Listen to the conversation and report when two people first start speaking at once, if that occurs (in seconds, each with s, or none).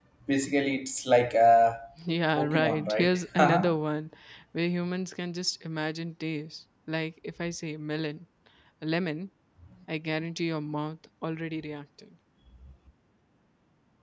2.4 s